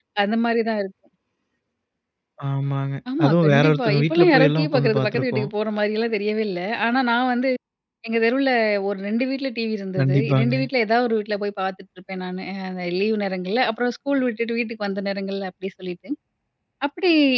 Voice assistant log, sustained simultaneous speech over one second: present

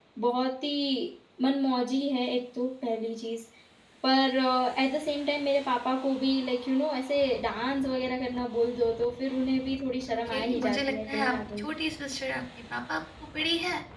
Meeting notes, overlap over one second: present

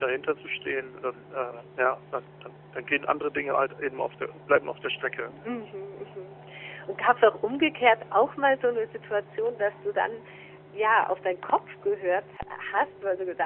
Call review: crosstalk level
none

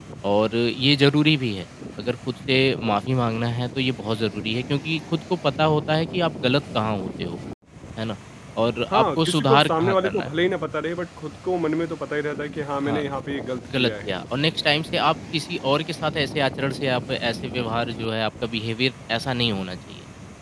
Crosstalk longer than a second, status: present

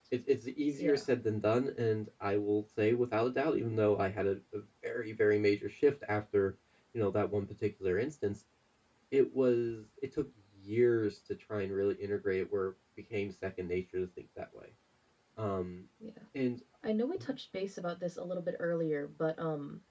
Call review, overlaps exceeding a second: none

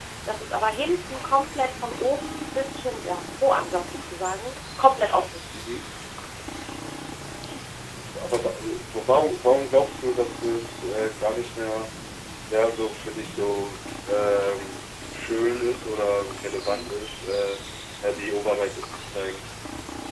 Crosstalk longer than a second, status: none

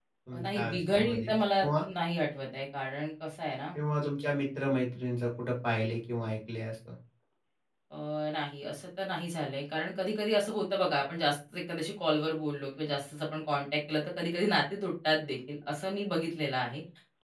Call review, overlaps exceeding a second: present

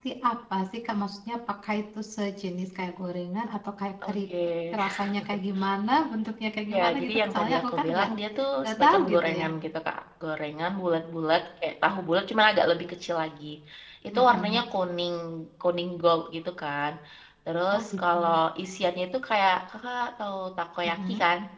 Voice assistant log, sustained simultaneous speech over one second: present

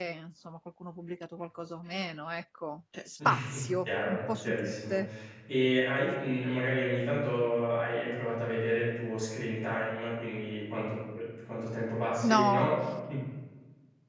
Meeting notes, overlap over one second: present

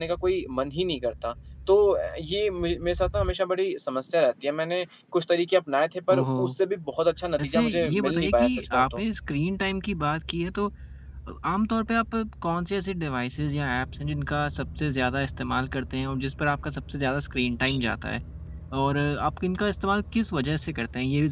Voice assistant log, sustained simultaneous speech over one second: present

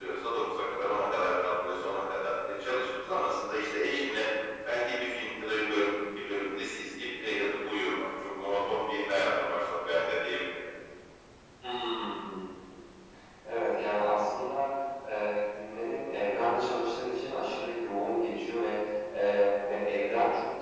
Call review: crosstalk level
none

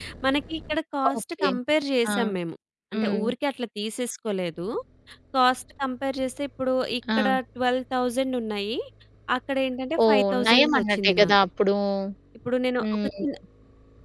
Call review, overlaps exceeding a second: present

